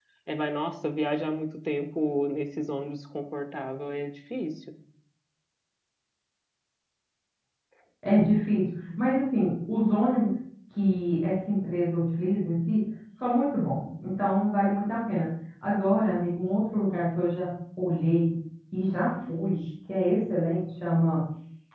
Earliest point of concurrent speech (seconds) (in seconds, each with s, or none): none